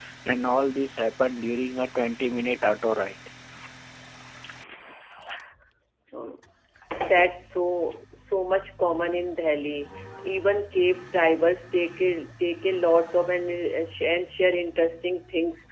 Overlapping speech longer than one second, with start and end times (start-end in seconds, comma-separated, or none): none